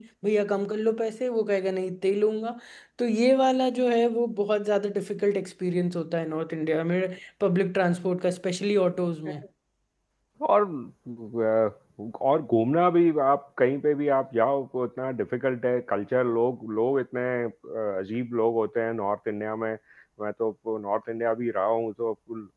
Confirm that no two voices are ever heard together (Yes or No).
Yes